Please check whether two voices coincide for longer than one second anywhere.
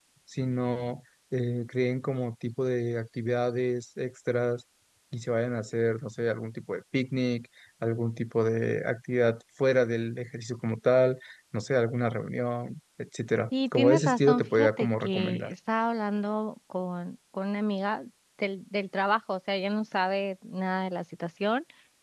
Yes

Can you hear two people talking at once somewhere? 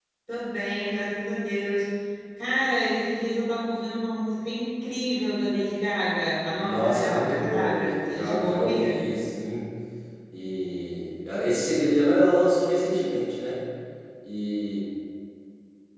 Yes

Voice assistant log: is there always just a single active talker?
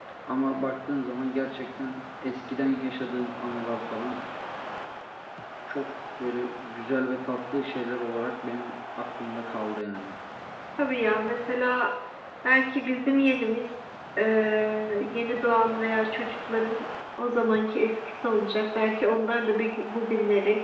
Yes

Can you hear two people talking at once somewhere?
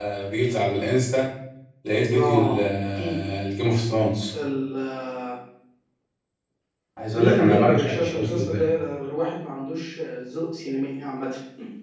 Yes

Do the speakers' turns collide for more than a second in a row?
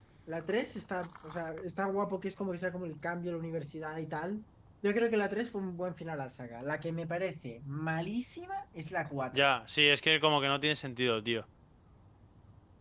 No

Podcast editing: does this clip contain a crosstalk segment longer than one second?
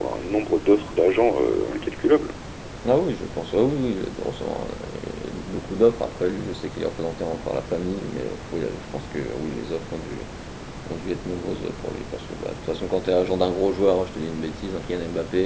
No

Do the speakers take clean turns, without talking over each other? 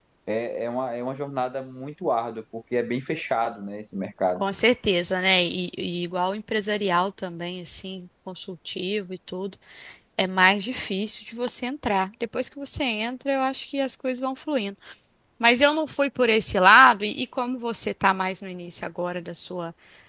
Yes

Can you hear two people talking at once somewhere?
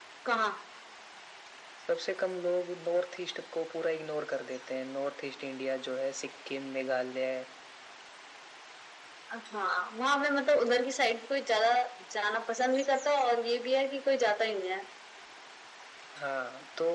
No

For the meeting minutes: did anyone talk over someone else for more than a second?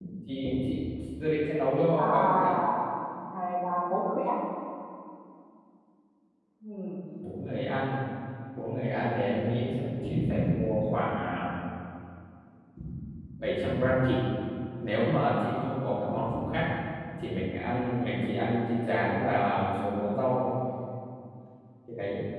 No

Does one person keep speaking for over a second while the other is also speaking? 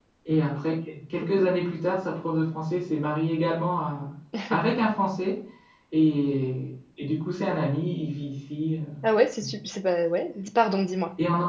No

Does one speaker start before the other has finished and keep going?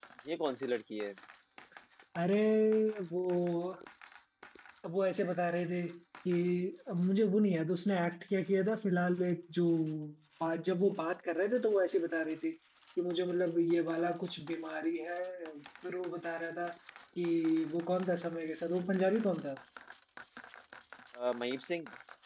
No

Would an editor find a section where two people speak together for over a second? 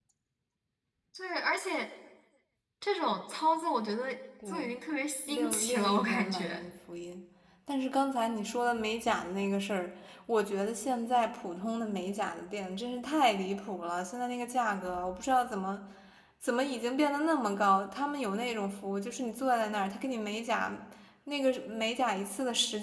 Yes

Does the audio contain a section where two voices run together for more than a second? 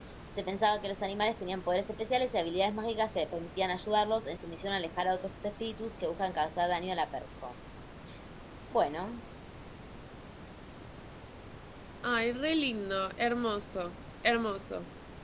No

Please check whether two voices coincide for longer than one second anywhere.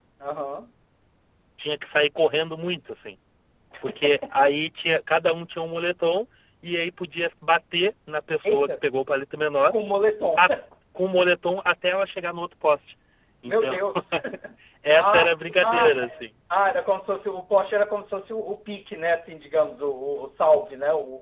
Yes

